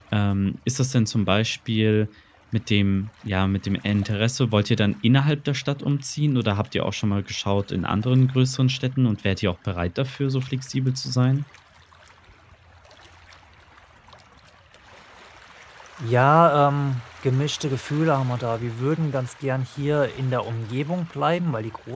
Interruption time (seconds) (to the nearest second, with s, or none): none